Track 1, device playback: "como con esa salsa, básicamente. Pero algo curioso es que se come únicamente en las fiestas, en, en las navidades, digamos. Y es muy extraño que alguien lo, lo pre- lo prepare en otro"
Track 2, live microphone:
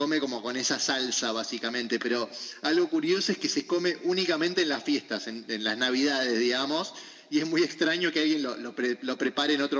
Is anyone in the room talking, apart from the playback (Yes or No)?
No